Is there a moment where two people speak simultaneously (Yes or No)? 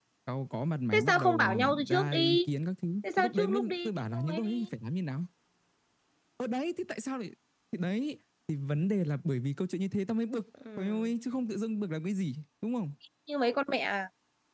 Yes